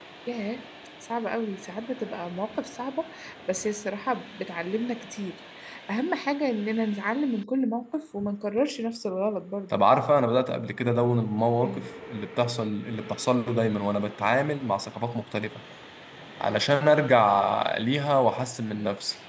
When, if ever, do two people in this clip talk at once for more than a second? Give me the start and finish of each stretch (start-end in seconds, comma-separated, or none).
none